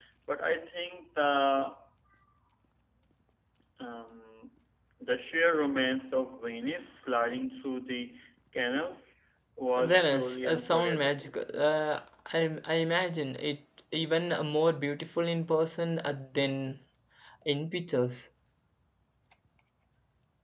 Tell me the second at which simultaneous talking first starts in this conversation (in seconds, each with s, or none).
9.8 s